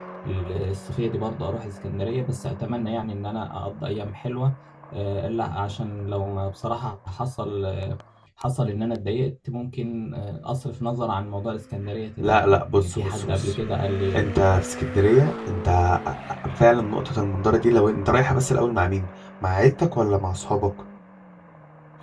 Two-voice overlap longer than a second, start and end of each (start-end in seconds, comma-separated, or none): 12.2-13.5